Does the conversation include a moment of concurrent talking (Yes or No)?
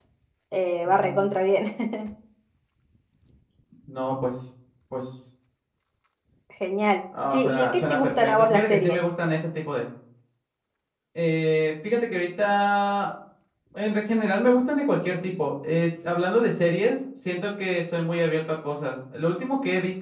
Yes